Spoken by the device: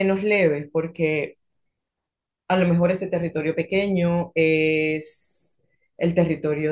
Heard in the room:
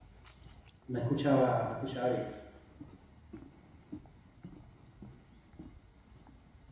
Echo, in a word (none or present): none